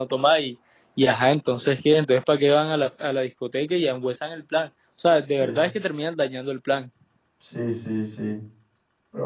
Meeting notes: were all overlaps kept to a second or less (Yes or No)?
Yes